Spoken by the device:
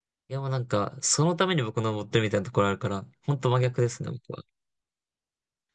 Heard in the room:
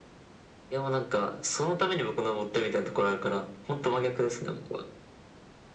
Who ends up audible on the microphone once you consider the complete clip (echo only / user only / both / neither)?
echo only